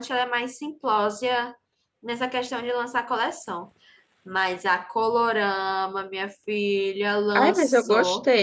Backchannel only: No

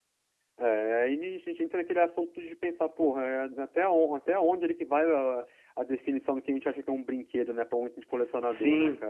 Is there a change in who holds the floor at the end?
Yes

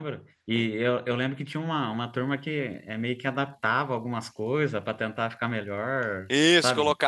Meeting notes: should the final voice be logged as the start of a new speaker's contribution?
Yes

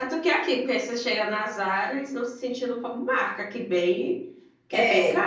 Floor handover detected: Yes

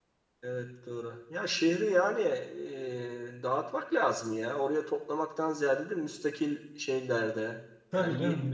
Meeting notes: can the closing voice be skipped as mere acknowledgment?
No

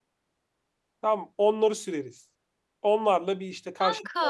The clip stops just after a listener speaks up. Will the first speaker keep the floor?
Yes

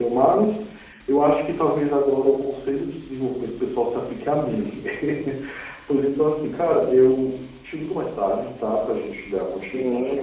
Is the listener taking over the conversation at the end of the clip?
Yes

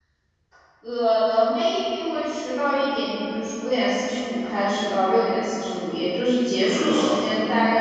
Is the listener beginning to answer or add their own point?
No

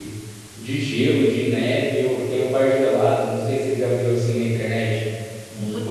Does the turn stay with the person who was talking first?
No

